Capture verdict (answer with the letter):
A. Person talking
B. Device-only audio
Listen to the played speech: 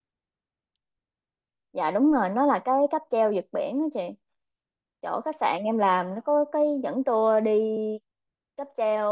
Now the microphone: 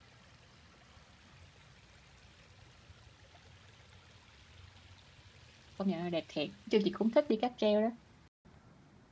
A